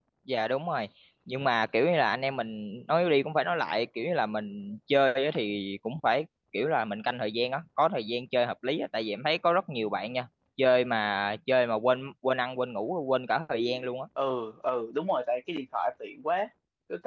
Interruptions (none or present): none